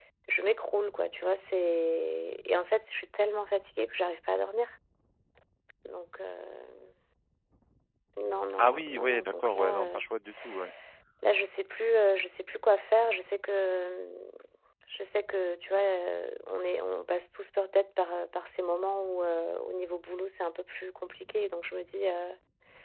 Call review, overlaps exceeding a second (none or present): present